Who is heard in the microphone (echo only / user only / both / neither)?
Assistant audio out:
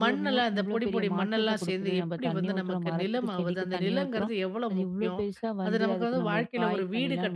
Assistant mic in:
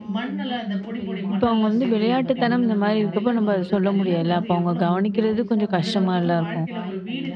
both